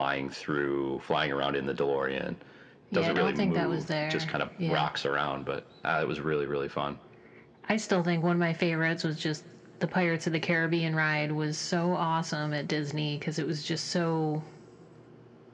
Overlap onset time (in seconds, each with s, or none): 2.9 s